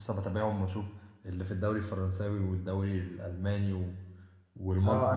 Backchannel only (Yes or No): No